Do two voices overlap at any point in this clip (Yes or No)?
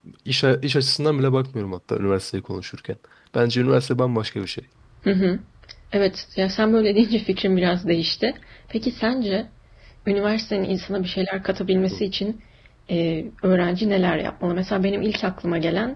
No